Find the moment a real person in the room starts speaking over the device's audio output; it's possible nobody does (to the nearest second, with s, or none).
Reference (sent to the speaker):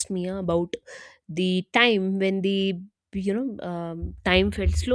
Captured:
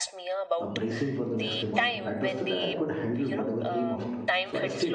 1 s